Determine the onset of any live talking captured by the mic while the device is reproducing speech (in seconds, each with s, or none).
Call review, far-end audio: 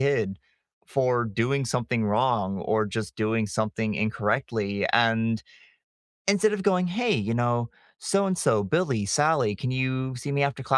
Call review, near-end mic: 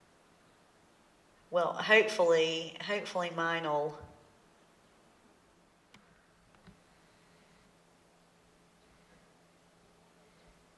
1.5 s